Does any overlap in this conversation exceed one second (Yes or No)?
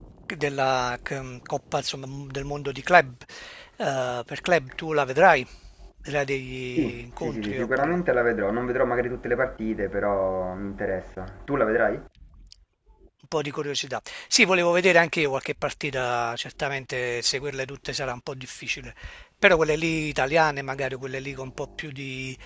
Yes